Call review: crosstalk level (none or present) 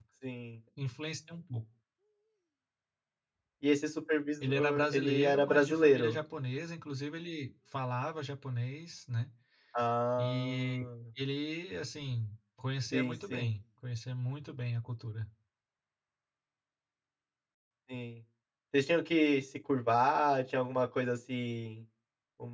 present